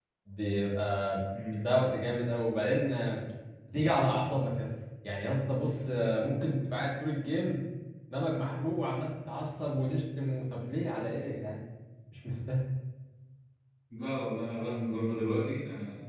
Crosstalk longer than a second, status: none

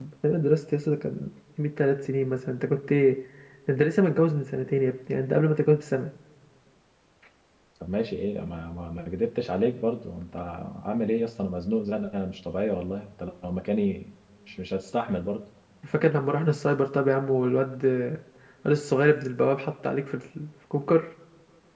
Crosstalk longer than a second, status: none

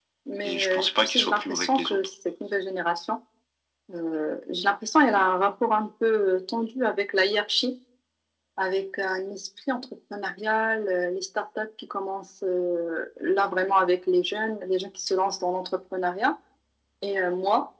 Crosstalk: present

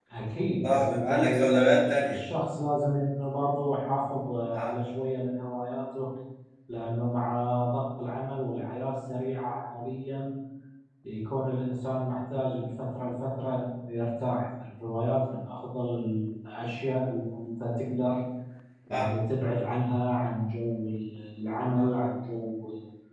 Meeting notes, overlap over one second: present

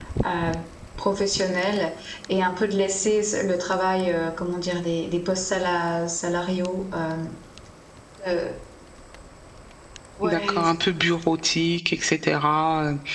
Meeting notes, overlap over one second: none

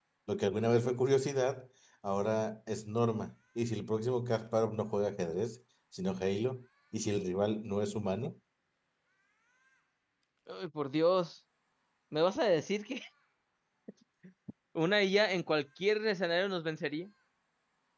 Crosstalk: none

